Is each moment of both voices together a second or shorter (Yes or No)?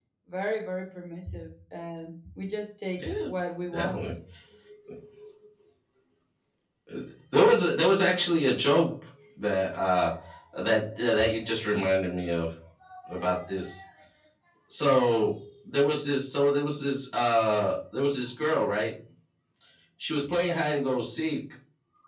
Yes